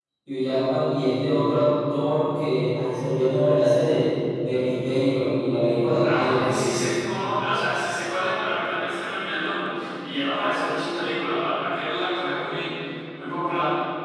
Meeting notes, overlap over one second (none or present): none